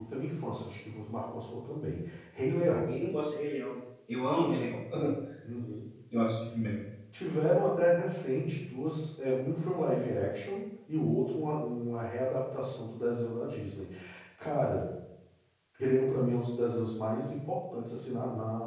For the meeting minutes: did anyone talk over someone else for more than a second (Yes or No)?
No